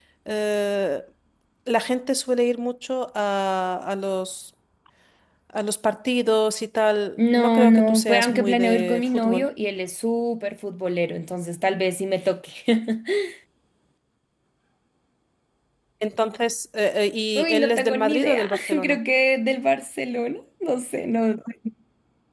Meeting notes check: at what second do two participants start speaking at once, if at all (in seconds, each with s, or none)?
7.2 s